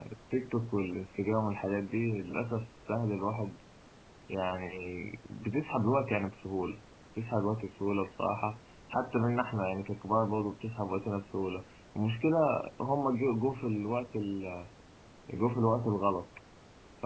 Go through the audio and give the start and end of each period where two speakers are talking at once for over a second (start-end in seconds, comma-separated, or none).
none